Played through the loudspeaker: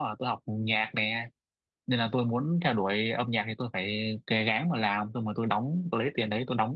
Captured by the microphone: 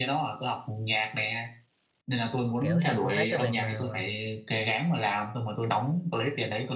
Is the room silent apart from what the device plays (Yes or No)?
No